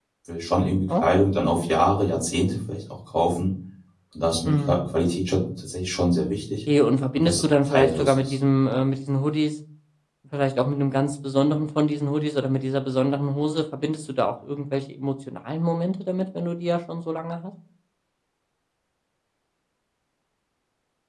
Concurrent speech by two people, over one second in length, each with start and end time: 7.1-8.3

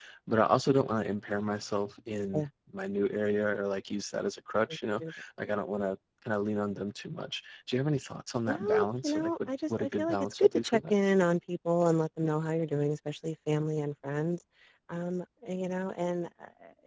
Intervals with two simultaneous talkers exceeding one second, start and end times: 8.5-10.9

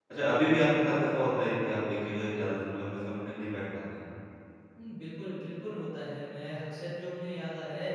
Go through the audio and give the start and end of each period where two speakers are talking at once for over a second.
none

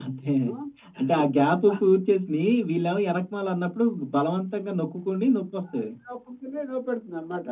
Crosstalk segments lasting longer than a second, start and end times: none

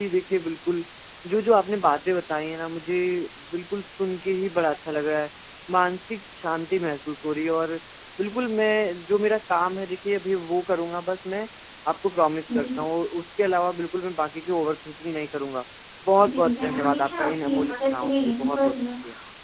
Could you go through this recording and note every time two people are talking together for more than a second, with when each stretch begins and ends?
16.2-18.8

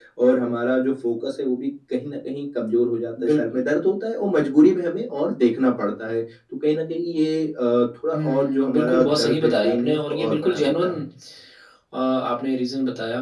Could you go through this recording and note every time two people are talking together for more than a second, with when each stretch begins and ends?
8.1-11.0

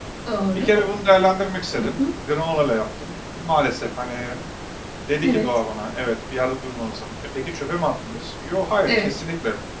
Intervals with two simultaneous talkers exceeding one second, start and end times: none

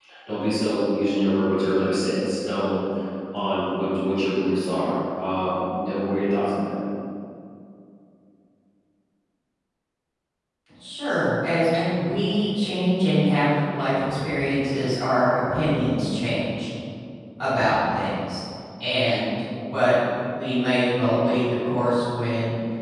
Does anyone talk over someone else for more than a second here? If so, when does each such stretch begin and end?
none

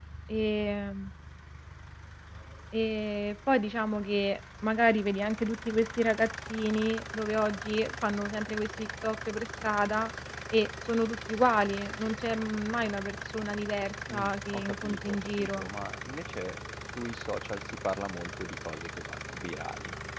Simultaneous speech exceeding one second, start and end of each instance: 14.1-15.7

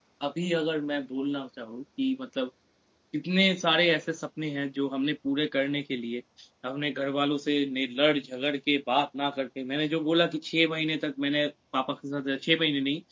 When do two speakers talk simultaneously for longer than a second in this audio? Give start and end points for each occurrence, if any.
none

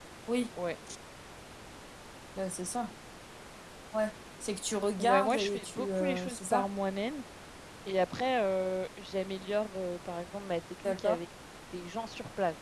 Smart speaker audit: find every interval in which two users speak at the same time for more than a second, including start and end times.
5.0-6.6

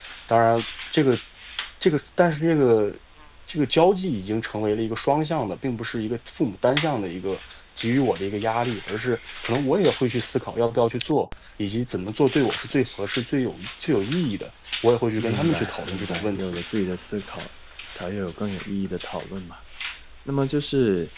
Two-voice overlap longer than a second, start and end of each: 15.2-16.4

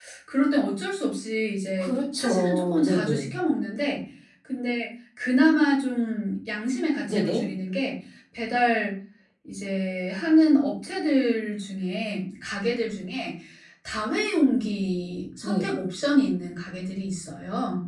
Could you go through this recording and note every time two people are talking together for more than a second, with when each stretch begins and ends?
1.8-3.2

